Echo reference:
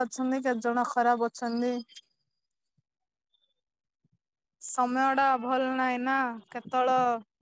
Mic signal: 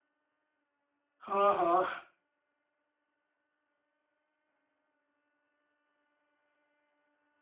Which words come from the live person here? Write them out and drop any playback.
ହଁ ହଁ

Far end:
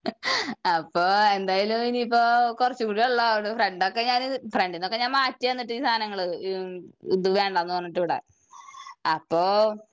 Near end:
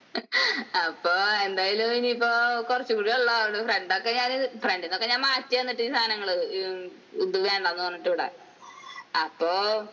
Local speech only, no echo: none

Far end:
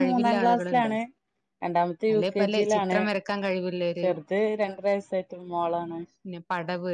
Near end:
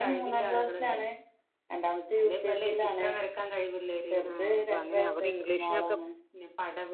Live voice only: ആഹ് അപ്പൊ അങ്ങനെ അവിടെ ഇംഗ്ലീഷിനൊക്കെ

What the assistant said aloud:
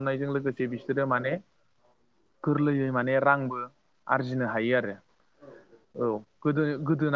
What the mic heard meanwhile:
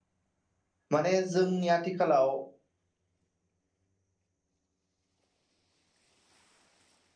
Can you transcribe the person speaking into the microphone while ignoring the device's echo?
माने जोंनि आथिखालाव

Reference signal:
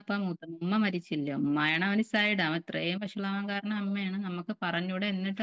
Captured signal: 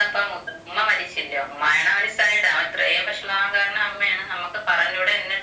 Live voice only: none

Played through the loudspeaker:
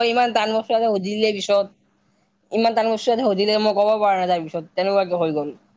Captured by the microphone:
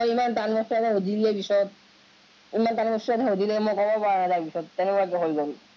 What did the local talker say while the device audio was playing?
none

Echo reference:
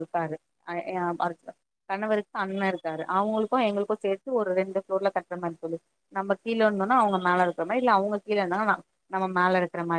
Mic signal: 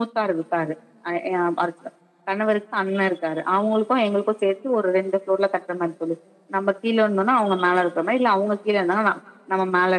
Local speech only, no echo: none

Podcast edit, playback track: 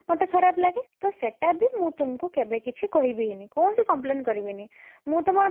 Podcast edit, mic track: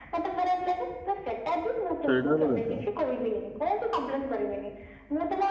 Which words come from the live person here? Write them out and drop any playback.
ସେଇଟା ହେଲା କଥା।

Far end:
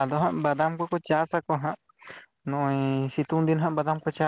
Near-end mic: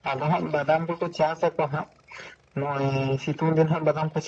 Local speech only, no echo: none

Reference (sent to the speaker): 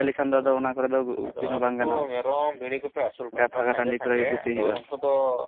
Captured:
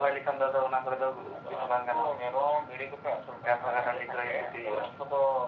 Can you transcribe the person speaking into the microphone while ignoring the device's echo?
none

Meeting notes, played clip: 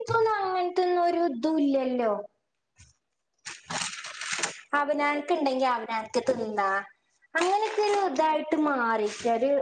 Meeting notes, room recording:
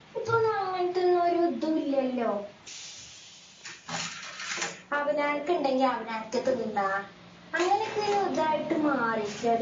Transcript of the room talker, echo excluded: none

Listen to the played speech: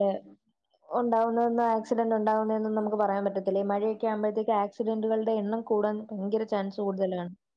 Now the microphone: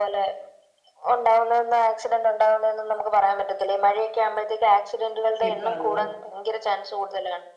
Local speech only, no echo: സ്ലിപ്പാകുക

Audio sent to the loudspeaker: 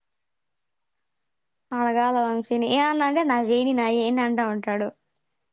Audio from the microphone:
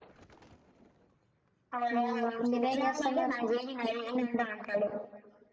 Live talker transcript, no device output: మ్మ్ మీరేం చేస్తున్నారు

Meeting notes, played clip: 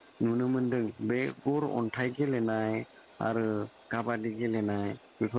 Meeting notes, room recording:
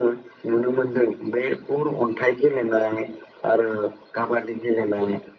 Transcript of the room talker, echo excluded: none

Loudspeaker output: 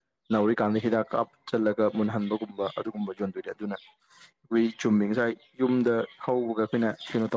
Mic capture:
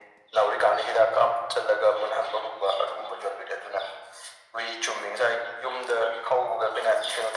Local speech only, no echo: none

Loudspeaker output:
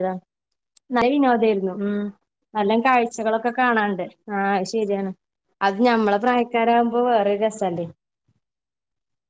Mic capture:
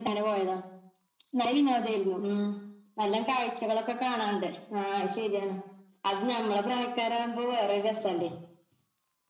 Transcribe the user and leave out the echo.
none

